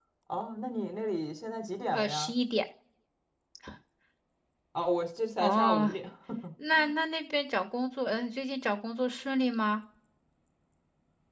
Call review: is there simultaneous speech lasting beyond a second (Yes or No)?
No